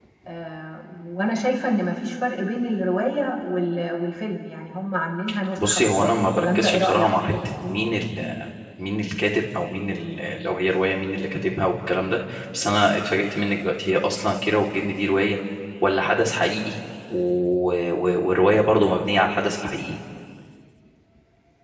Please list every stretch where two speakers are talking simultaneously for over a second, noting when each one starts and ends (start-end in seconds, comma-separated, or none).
5.6-7.3